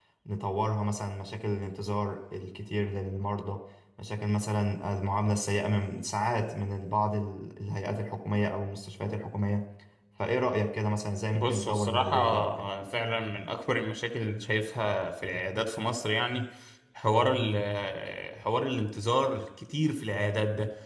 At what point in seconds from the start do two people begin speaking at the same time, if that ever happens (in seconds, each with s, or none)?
11.3 s